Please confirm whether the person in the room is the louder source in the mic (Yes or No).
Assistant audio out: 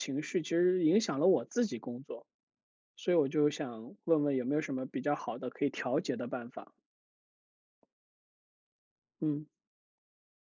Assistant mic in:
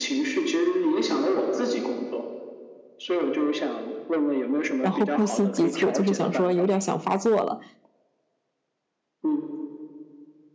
Yes